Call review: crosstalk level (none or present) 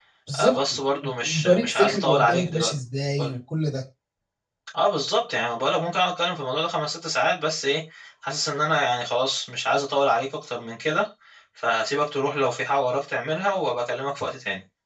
present